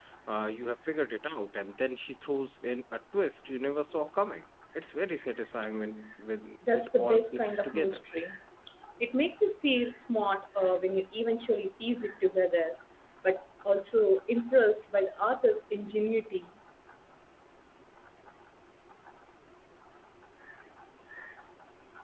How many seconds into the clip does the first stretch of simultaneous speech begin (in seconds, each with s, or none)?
6.6 s